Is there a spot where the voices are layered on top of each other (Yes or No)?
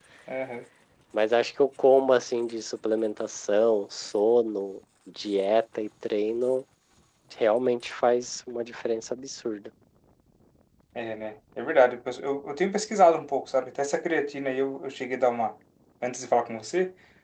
No